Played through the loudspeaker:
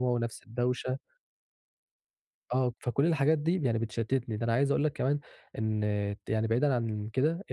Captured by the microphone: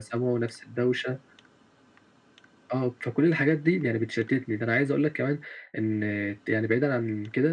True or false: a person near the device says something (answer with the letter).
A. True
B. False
B